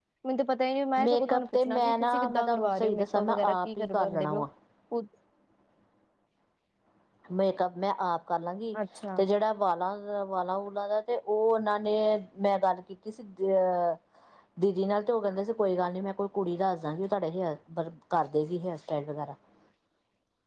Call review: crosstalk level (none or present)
present